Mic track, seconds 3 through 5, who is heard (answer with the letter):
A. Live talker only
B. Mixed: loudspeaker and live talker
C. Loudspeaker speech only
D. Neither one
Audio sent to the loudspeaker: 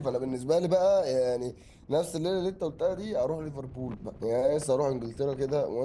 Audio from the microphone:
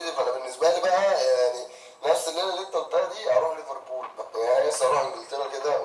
C